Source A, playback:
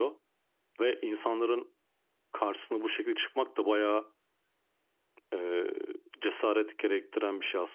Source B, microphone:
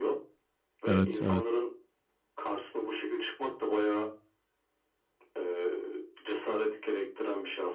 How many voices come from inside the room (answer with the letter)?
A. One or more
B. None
A